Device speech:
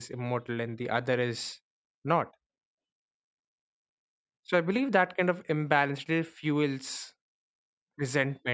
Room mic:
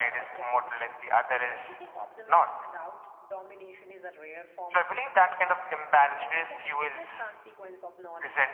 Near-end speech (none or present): present